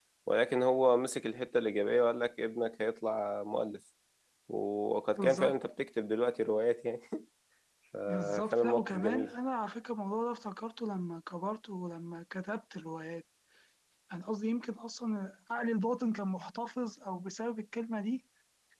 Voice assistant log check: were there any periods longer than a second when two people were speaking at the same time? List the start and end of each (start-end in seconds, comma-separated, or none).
8.1-9.3